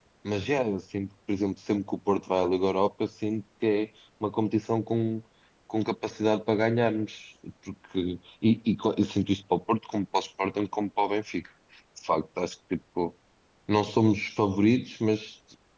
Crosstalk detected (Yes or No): No